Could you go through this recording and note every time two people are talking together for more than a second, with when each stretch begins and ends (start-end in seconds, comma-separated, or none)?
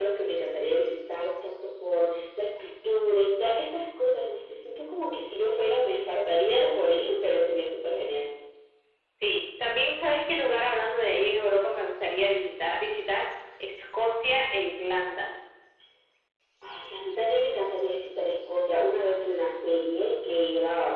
none